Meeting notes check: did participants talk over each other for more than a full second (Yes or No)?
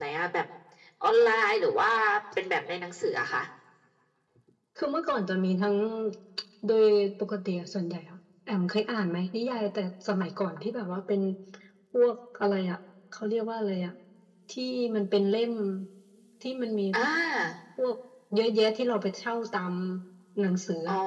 No